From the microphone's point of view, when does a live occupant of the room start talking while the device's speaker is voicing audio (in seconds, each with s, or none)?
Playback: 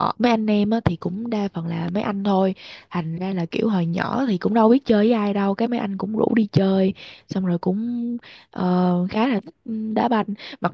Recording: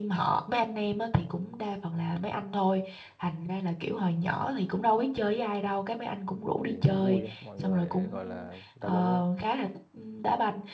6.6 s